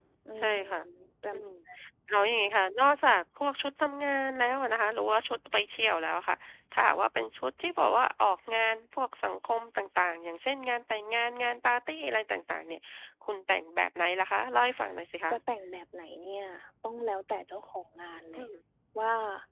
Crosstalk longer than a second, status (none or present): none